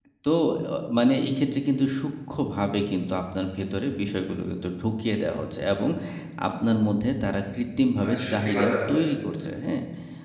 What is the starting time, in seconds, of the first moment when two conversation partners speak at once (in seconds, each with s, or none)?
7.6 s